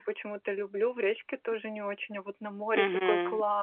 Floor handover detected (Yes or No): Yes